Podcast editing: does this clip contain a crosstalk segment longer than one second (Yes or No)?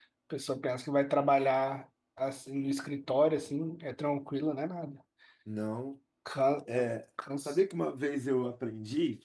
No